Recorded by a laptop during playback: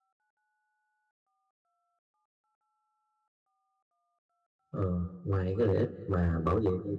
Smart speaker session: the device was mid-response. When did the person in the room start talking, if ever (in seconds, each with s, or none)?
4.7 s